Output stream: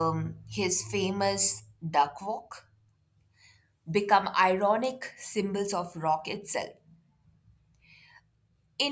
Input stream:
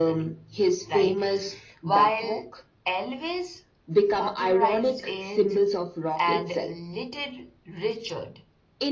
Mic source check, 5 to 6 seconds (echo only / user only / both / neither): both